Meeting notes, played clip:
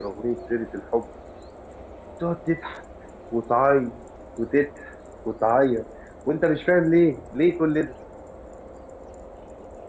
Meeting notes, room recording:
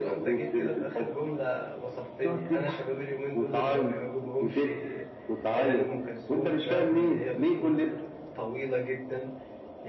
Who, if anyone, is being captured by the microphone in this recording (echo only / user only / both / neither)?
both